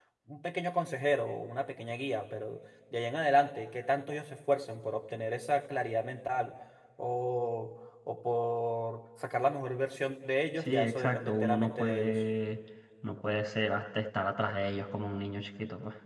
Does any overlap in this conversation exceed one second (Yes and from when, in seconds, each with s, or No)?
Yes, from 10.6 s